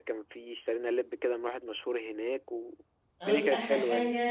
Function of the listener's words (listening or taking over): taking over